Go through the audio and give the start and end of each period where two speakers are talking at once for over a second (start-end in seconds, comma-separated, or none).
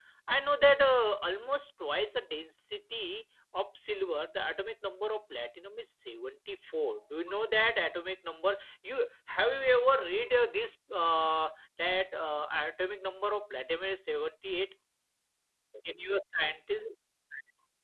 none